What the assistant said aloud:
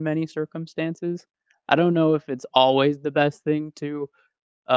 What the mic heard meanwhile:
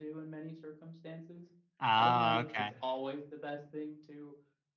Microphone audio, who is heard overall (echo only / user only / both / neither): both